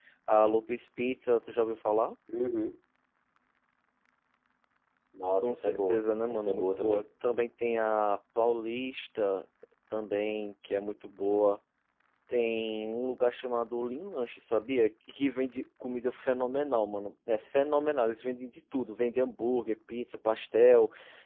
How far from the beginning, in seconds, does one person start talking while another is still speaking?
5.4 s

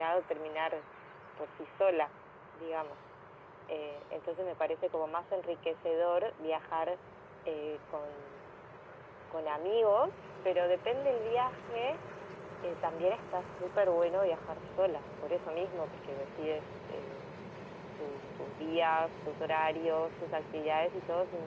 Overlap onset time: none

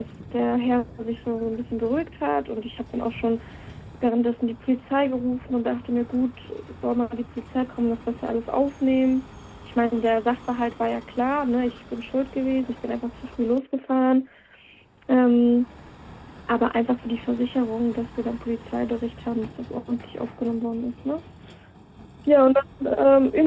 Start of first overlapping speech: none

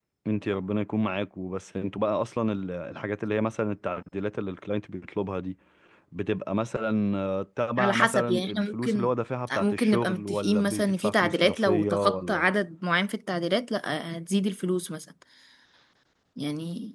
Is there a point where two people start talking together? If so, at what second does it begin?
7.8 s

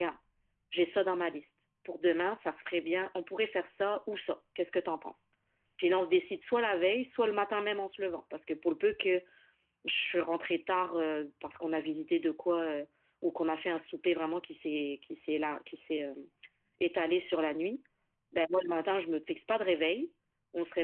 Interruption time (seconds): none

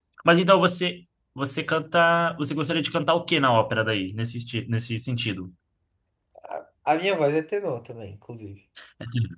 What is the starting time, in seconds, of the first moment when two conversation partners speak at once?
none

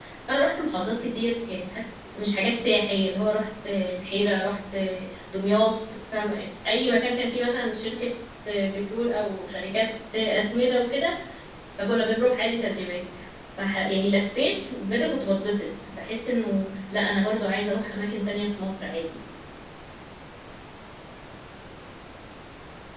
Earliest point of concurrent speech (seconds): none

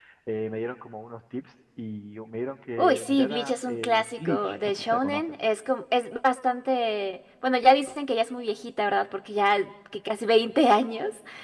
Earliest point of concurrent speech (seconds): 2.8 s

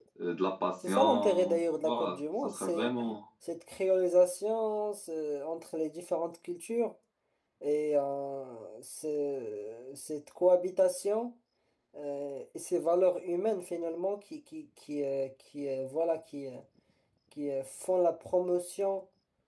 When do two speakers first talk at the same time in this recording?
0.9 s

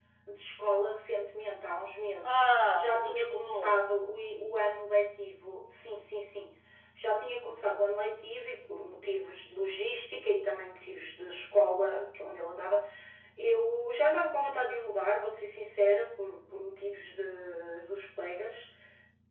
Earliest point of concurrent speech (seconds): 2.2 s

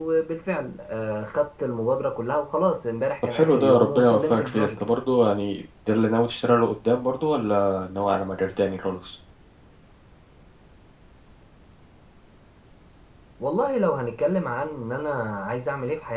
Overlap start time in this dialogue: 3.2 s

